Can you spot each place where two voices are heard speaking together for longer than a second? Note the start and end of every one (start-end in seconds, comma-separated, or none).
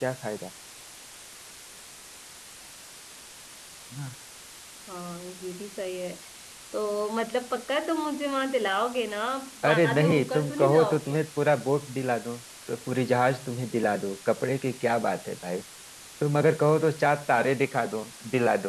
9.7-11.1